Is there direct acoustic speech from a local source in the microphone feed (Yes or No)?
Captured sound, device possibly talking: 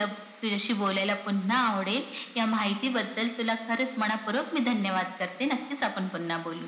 No